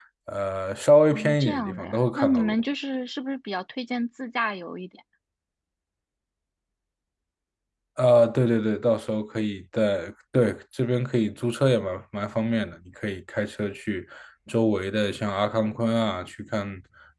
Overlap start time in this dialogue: 1.1 s

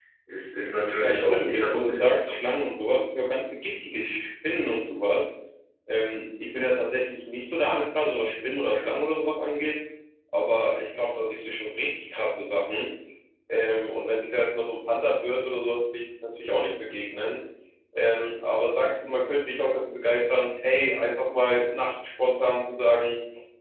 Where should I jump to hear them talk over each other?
1.0 s

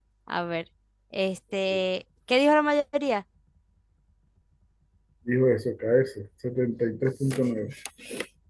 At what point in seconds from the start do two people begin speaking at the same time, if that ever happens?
none

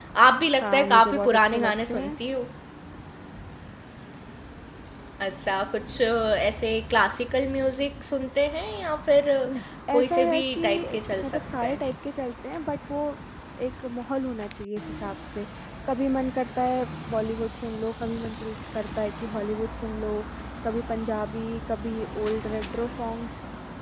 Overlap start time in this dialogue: 0.6 s

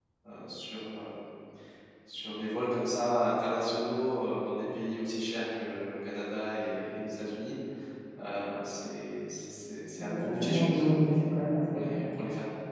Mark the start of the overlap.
10.0 s

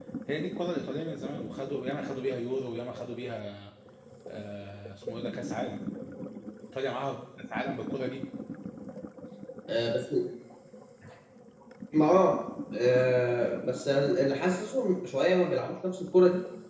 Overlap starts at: none

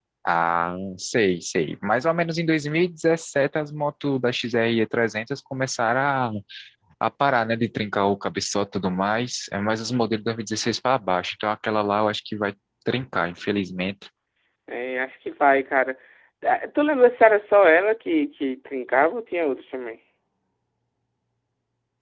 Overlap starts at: none

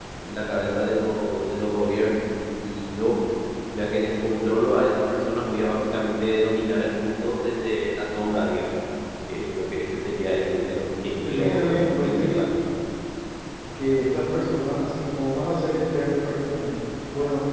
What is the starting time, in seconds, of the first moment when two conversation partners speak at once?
11.2 s

